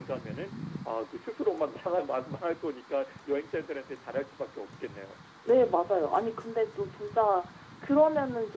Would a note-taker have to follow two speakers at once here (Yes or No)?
No